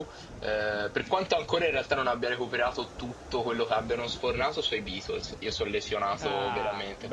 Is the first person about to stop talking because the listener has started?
Yes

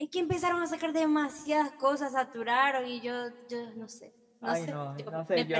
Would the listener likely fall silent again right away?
No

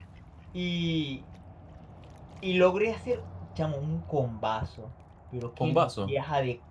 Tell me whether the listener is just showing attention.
Yes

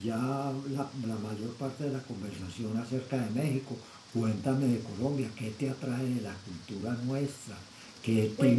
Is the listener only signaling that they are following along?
Yes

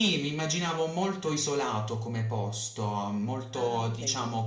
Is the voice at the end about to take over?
No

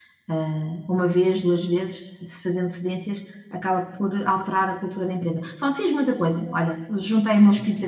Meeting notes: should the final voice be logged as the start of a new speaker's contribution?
Yes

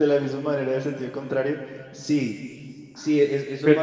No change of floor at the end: Yes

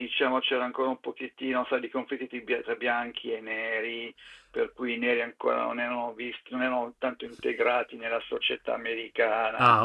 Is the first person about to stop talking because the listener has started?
Yes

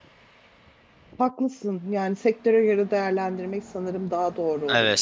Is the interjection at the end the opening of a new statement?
Yes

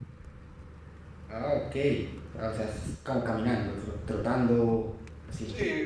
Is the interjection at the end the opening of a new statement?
Yes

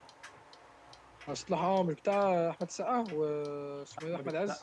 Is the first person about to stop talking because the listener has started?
Yes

